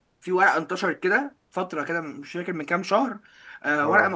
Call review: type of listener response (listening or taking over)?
listening